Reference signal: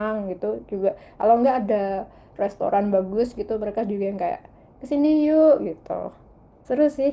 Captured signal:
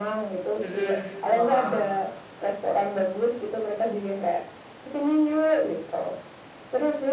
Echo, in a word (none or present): present